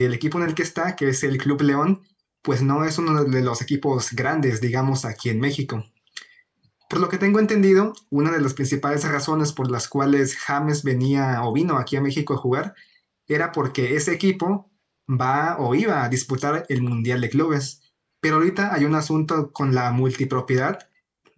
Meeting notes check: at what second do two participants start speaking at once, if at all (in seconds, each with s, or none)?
none